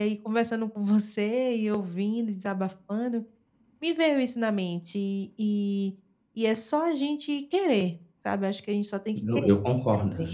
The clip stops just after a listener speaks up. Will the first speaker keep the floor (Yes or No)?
No